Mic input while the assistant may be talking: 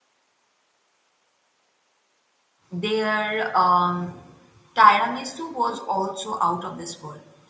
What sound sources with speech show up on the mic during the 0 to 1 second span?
neither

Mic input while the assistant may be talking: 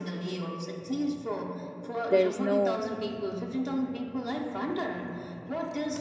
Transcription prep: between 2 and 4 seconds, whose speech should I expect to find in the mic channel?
both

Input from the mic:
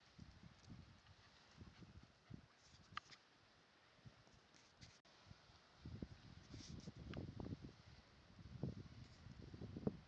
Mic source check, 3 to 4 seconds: neither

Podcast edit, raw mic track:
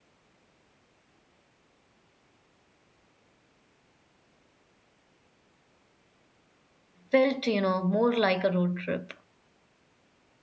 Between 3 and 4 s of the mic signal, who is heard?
neither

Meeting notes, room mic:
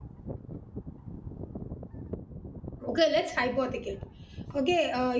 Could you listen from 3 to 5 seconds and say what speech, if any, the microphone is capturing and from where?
user only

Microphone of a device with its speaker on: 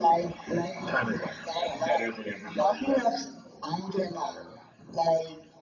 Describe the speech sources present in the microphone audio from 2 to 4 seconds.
echo only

